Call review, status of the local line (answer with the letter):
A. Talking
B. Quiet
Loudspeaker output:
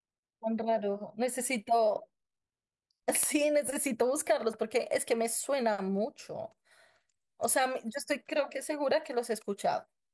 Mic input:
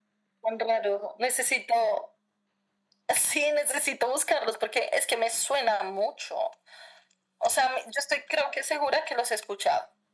B